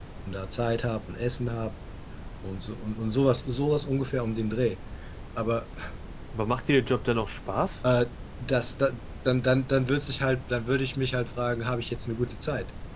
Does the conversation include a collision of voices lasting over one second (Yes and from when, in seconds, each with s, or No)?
No